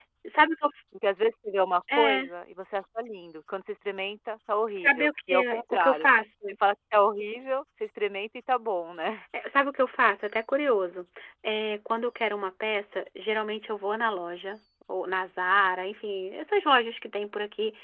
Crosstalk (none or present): present